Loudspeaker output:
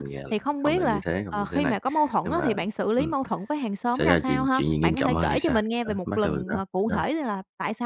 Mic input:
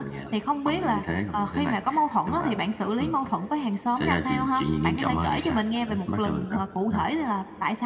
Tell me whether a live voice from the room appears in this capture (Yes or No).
No